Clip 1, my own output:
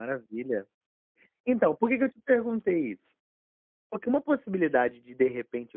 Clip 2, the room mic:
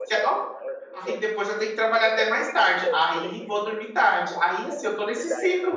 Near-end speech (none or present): present